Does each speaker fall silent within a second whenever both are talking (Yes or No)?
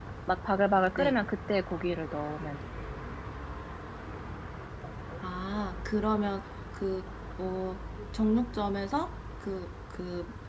Yes